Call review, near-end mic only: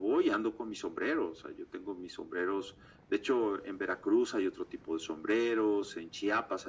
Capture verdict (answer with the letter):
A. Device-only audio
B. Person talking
A